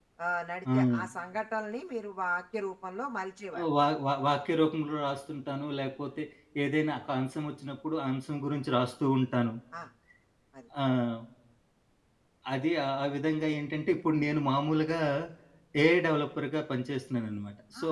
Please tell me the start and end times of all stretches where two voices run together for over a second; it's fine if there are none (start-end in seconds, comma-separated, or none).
none